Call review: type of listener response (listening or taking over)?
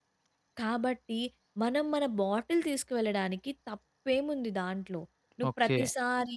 listening